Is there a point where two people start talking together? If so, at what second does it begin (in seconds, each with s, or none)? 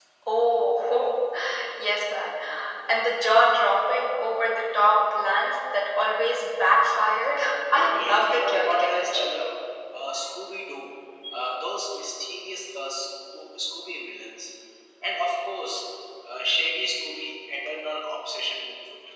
7.8 s